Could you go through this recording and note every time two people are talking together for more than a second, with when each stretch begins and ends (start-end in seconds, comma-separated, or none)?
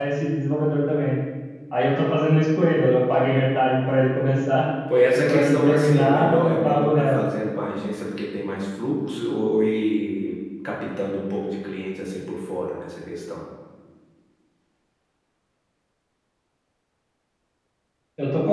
5.1-7.2